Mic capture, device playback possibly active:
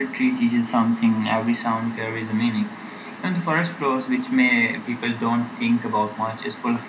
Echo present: Yes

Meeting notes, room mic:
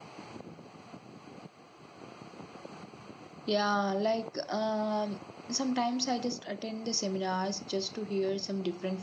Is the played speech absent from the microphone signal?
Yes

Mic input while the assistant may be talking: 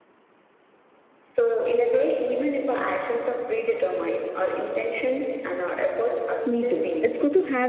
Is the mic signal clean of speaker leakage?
No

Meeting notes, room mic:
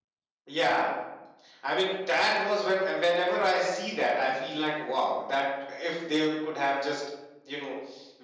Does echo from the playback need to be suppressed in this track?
No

